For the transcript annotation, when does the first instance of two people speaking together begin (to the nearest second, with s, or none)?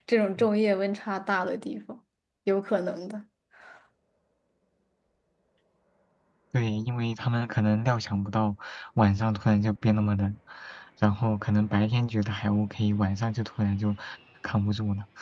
none